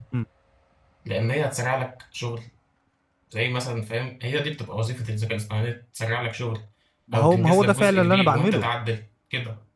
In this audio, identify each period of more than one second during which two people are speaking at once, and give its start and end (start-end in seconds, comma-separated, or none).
7.1-8.7